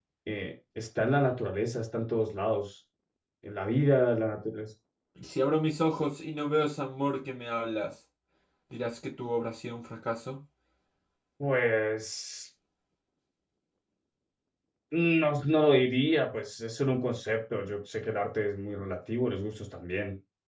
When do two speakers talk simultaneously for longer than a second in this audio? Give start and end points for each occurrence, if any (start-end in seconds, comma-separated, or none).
none